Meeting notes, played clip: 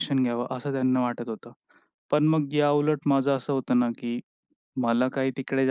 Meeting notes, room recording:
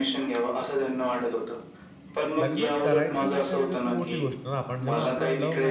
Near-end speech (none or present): present